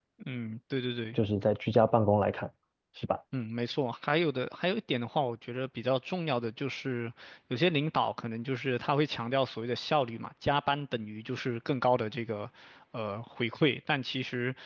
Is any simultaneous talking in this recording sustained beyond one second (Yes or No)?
No